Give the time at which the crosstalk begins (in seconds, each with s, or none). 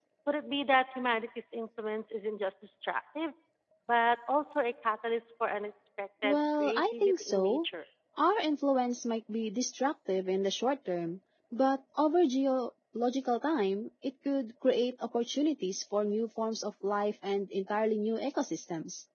6.2 s